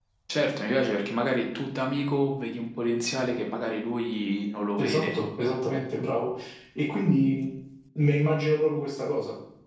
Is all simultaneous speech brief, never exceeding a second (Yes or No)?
Yes